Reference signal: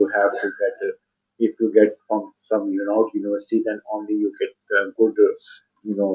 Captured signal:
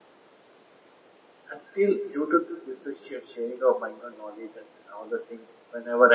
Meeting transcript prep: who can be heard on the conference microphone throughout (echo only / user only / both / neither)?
user only